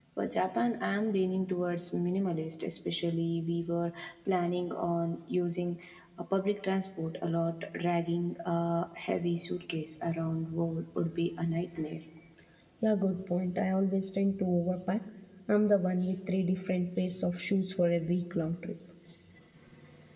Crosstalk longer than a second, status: none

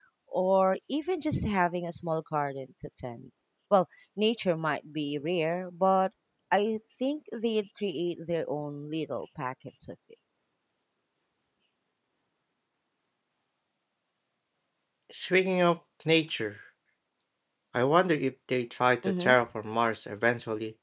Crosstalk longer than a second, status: none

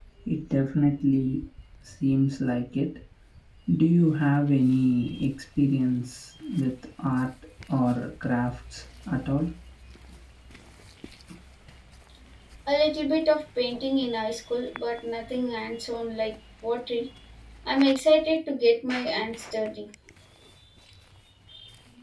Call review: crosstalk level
none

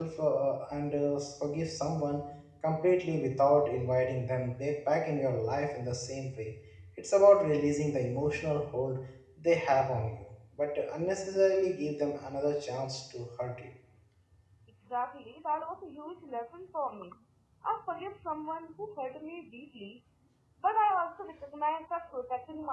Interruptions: none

